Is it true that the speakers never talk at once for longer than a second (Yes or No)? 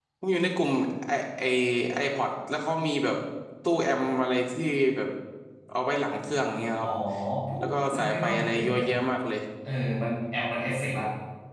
No